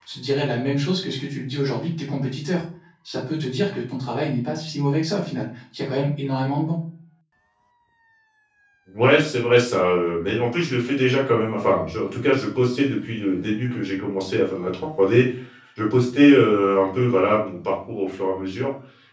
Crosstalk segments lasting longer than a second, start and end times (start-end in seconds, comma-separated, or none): none